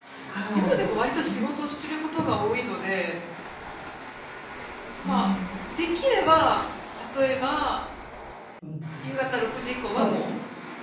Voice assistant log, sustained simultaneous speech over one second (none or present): none